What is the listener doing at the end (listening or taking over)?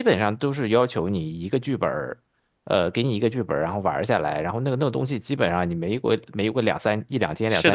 taking over